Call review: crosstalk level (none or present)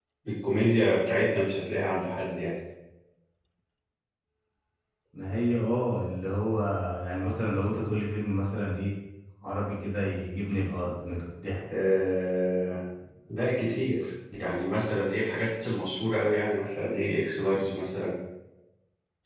none